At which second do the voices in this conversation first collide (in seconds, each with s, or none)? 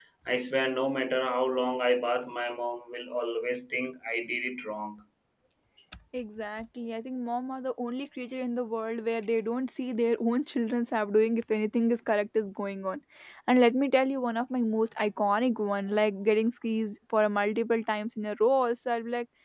none